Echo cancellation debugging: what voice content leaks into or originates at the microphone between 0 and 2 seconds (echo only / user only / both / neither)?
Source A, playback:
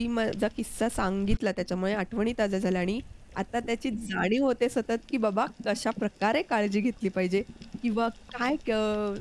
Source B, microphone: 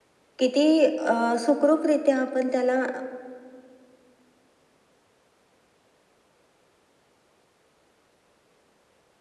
user only